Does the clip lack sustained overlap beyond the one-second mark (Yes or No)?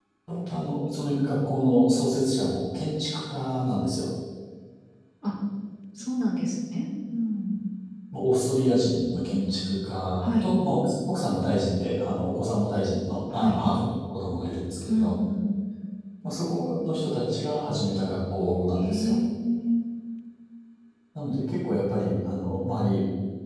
Yes